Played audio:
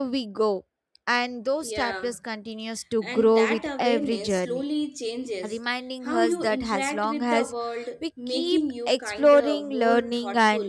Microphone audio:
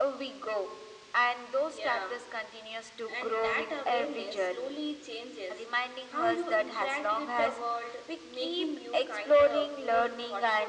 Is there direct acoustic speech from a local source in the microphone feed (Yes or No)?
No